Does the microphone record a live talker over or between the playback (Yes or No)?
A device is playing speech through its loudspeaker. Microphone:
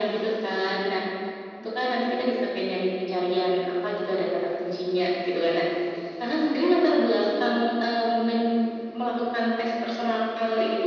No